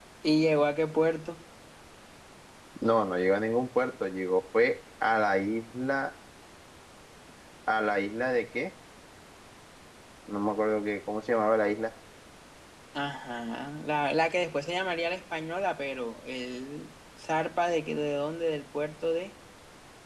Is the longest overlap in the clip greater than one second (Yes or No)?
No